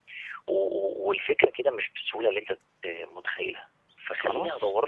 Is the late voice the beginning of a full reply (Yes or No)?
No